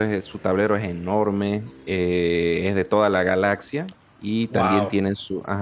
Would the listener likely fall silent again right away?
Yes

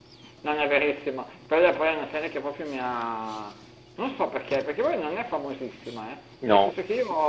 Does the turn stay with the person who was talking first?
Yes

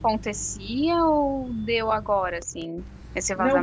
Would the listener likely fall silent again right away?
No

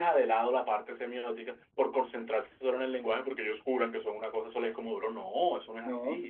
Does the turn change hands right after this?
Yes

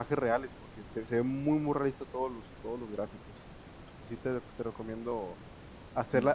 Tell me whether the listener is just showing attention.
Yes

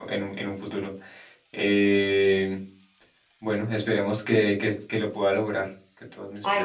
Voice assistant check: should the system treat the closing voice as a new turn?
Yes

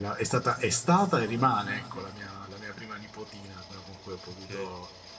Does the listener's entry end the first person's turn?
No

